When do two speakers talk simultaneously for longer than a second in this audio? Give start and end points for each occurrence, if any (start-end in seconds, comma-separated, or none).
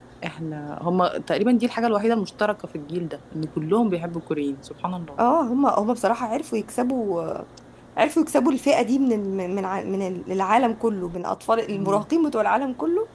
none